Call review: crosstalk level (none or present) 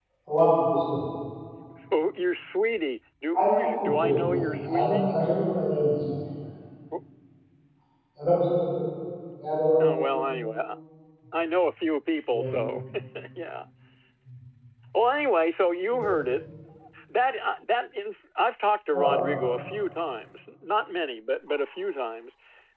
present